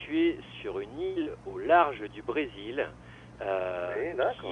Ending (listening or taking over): listening